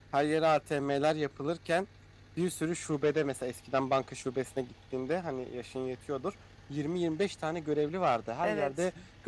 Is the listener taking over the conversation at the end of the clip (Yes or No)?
No